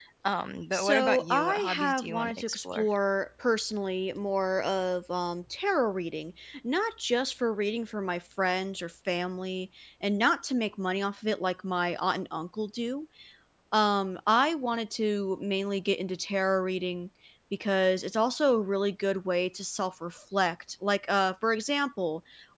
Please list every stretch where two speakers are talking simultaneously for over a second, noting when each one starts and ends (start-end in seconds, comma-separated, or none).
0.7-2.9